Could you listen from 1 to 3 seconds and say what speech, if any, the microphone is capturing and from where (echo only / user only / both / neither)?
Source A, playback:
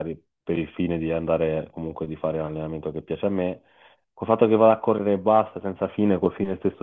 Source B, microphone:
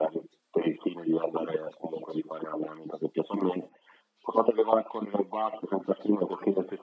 echo only